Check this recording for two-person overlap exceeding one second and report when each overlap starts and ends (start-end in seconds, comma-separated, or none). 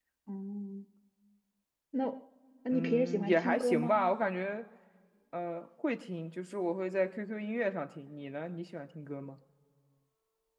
2.7-4.1